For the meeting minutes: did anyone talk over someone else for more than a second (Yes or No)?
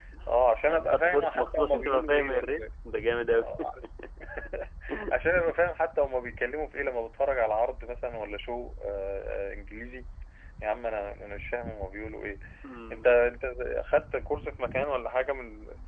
Yes